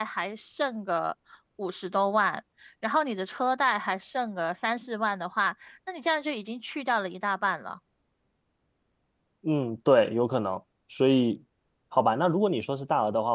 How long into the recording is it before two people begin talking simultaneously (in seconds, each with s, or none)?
none